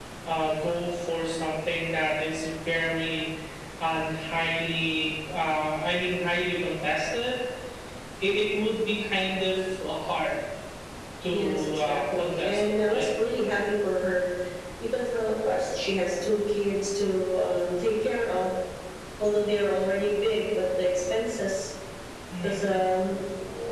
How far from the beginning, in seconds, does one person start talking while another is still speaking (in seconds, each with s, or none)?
11.3 s